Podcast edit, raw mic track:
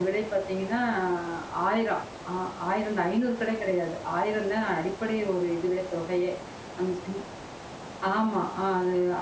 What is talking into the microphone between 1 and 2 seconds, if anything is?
user only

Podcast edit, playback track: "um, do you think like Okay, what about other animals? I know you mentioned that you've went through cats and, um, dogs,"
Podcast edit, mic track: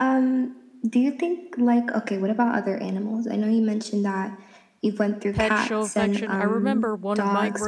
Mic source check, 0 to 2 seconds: echo only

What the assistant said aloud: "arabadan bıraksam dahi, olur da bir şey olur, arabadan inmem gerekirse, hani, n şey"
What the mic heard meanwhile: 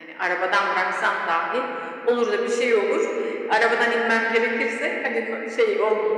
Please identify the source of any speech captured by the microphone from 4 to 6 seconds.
echo only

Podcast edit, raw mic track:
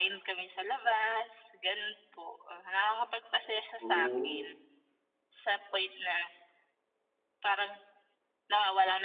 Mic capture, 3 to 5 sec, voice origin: both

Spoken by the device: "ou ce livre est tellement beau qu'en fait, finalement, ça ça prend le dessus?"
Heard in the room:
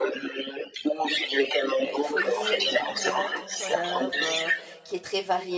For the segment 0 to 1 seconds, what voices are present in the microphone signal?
echo only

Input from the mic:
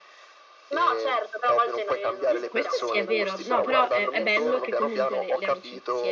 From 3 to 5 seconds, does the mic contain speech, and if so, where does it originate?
both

